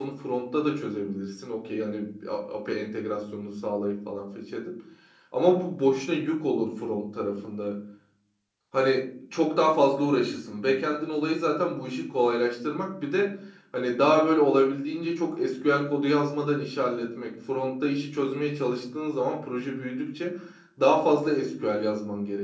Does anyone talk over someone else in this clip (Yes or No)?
No